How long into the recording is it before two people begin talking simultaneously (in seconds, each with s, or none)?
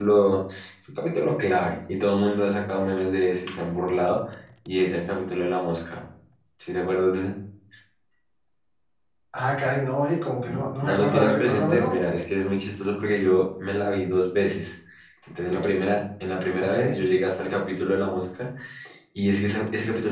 10.5 s